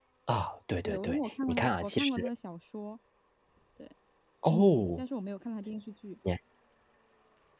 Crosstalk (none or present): present